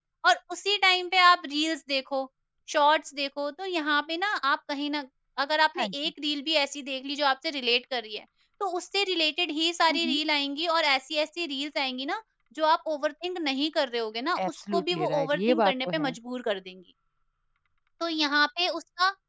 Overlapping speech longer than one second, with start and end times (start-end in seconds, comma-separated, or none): 14.5-16.1